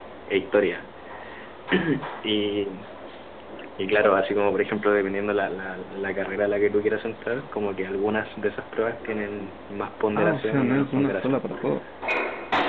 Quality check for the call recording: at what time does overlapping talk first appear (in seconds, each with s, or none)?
10.2 s